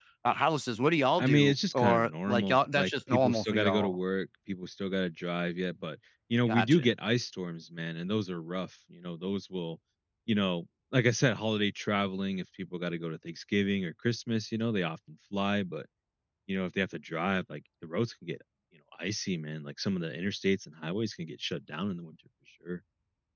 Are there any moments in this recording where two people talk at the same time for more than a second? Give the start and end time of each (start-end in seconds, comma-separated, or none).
1.2-4.0